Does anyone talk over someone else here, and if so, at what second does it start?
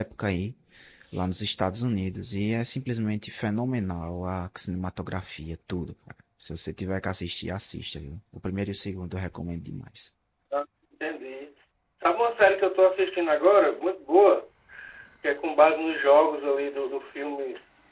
none

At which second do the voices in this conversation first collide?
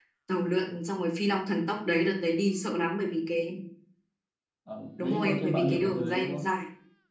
5.0 s

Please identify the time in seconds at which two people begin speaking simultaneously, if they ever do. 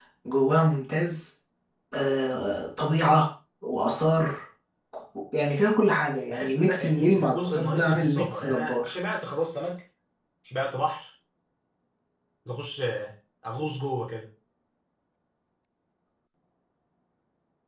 6.3 s

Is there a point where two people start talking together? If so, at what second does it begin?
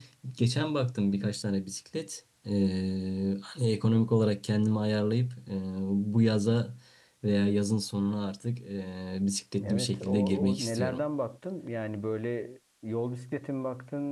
9.6 s

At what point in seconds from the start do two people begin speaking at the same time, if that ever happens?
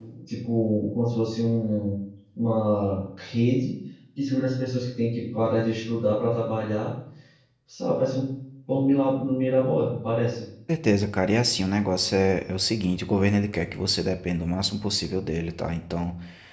none

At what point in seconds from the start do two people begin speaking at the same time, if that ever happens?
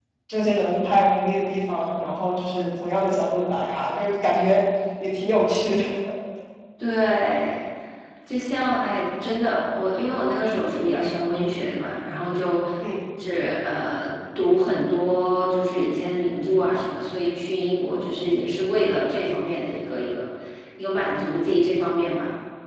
none

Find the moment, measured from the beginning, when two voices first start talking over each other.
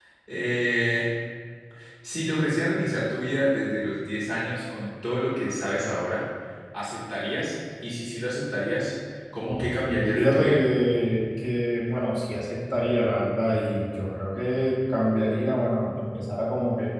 9.4 s

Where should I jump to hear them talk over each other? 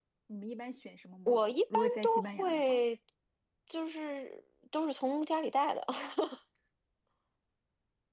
1.3 s

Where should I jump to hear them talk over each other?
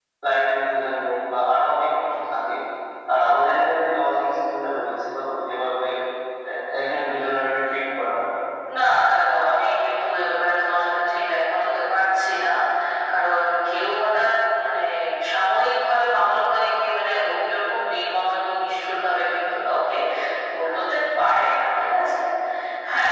none

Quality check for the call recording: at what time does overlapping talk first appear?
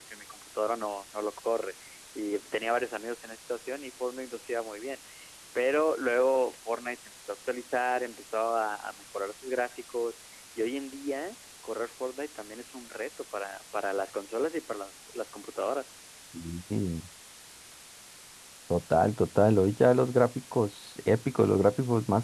none

